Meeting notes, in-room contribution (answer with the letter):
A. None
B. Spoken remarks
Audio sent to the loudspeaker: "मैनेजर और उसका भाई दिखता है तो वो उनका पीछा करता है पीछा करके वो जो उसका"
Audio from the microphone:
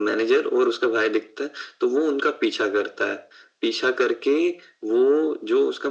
A